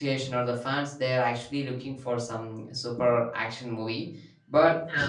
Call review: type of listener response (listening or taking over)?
listening